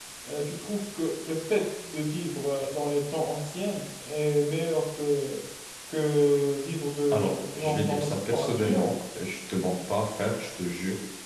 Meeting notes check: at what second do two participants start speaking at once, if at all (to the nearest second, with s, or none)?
7 s